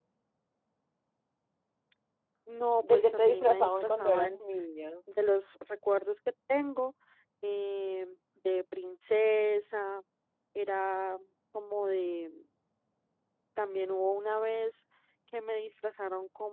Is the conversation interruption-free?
No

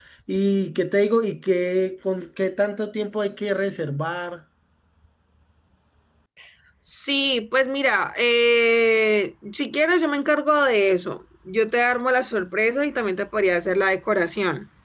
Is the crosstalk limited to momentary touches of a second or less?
Yes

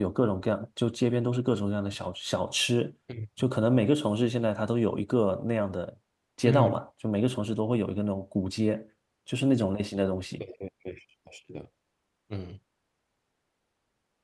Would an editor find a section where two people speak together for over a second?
No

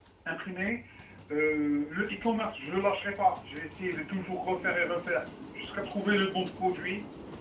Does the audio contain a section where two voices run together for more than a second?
No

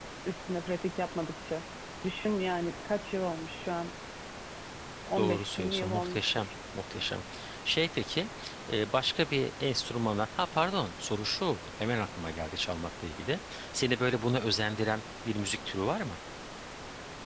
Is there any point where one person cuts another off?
Yes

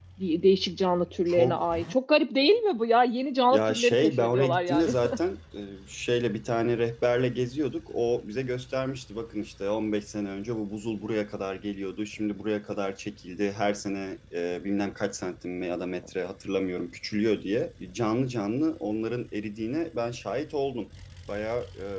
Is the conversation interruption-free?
No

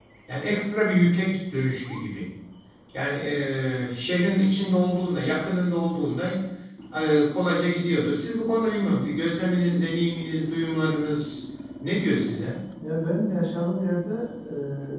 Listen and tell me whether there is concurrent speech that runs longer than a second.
No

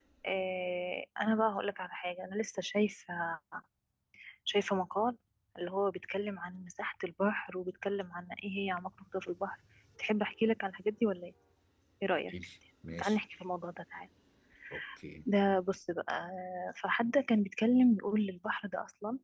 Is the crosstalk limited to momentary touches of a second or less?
Yes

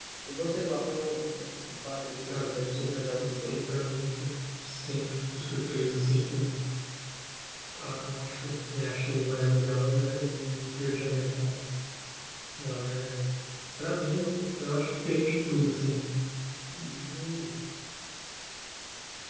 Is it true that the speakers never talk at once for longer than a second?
No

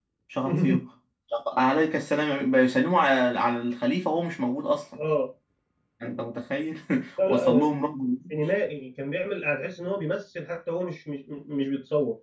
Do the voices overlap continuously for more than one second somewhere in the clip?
No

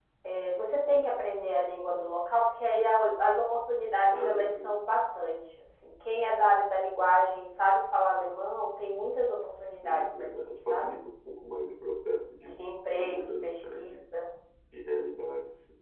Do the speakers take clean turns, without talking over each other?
No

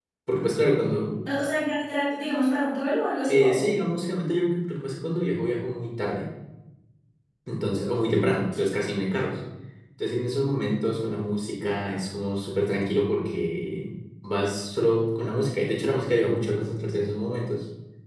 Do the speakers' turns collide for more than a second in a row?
No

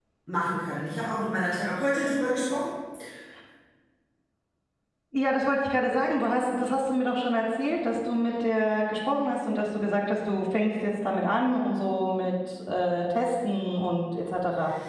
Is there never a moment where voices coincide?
Yes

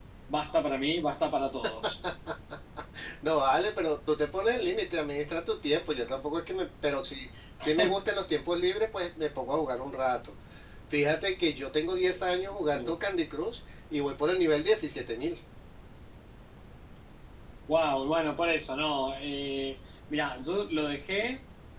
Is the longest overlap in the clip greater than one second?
No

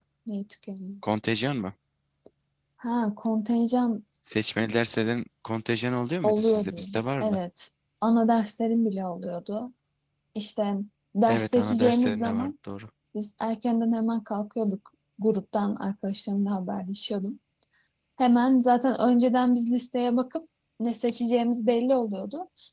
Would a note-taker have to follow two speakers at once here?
Yes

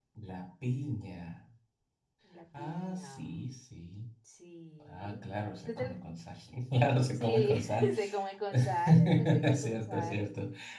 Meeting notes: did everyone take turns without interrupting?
No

